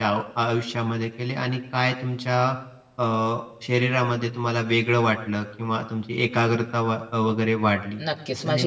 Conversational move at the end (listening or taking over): taking over